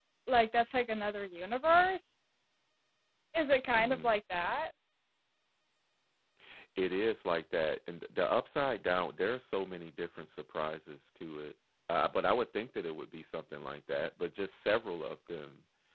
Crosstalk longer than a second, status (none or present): none